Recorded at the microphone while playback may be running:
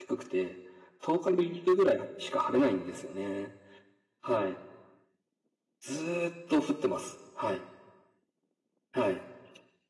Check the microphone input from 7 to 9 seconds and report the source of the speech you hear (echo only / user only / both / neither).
user only